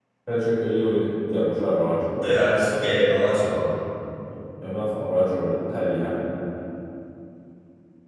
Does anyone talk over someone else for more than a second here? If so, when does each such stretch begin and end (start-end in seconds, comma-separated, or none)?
none